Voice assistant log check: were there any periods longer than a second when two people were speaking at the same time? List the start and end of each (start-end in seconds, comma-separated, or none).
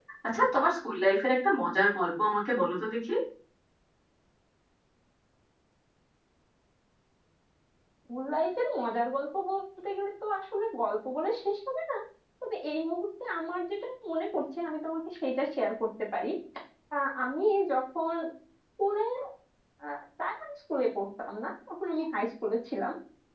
none